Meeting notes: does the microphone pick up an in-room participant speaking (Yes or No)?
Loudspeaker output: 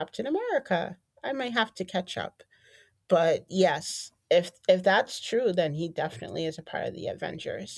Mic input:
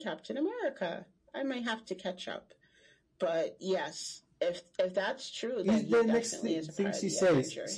Yes